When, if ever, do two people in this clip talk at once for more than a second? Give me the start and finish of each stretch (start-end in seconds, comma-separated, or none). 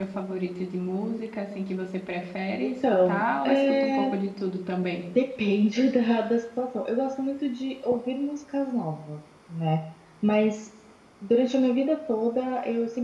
2.6-4.1